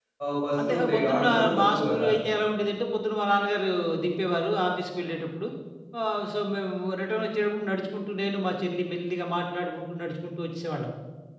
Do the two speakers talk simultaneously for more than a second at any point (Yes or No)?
Yes